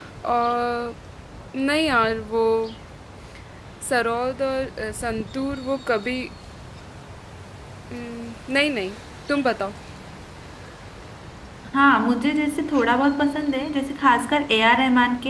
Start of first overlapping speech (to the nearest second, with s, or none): none